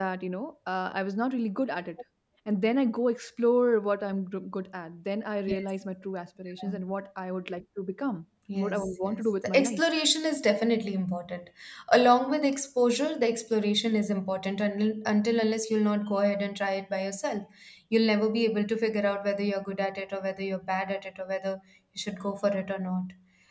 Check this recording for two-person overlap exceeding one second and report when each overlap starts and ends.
8.6-9.8

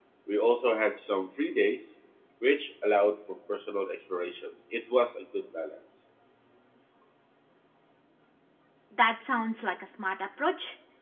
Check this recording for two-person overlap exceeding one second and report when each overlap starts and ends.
none

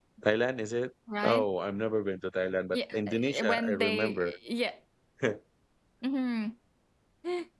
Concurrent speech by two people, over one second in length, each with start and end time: 2.7-4.3

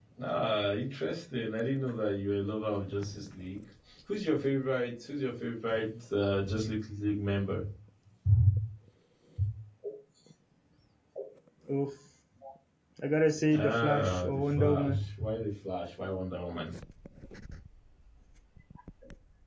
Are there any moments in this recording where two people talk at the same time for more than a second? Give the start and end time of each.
13.5-15.0

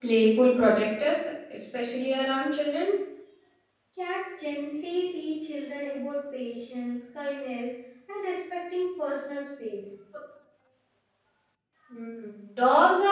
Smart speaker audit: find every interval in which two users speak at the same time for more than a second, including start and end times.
none

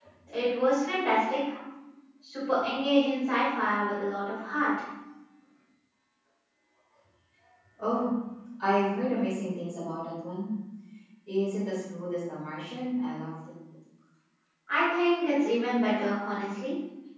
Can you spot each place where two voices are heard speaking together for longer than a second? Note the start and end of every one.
none

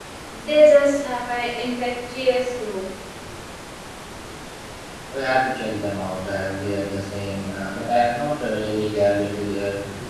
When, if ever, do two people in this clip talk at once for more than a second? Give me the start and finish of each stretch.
none

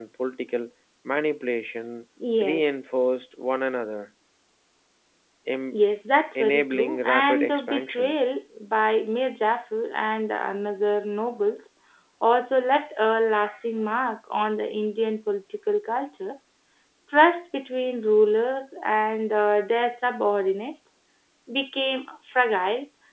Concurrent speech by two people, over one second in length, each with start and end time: 6.3-8.2

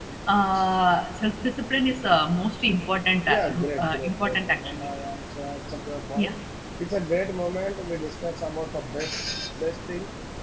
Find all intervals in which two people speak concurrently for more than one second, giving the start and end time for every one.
3.2-4.9

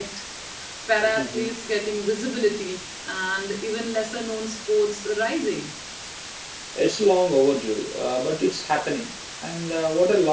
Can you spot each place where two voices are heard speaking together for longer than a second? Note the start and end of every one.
none

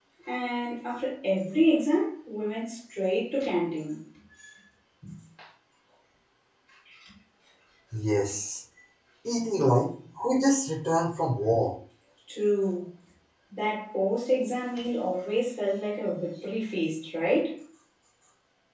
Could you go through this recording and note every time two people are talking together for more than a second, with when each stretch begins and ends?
none

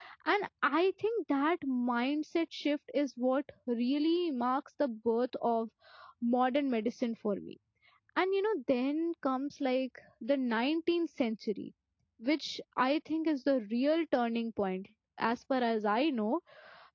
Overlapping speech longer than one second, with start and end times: none

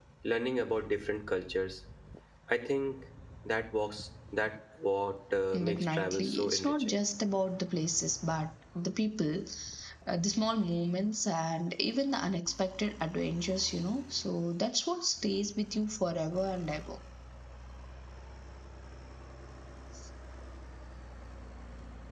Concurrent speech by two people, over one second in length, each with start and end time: 5.5-7.0

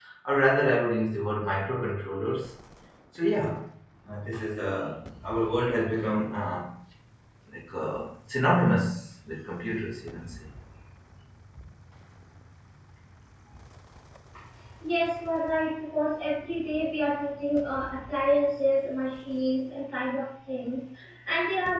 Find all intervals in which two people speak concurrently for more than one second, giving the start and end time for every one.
none

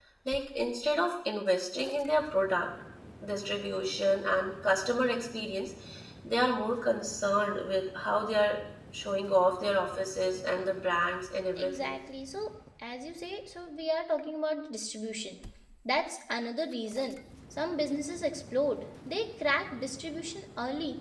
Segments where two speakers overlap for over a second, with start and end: none

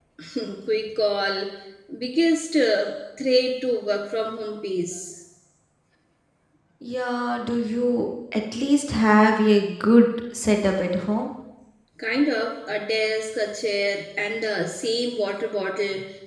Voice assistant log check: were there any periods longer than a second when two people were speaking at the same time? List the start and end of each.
none

